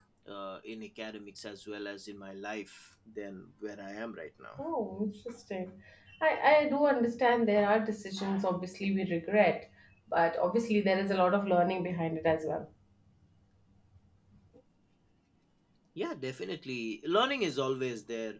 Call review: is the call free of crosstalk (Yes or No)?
Yes